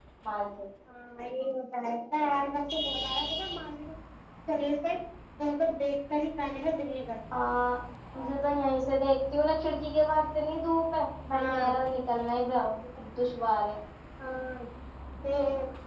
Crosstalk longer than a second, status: none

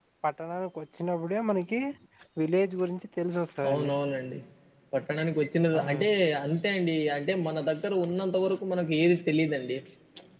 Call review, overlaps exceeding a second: none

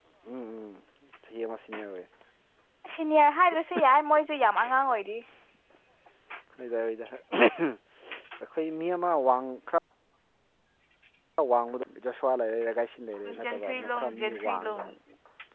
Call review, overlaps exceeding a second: present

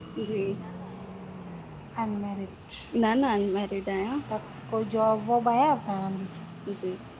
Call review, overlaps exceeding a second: none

